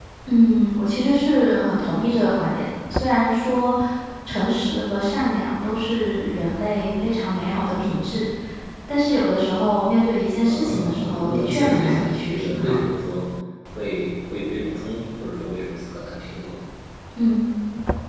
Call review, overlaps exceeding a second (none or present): present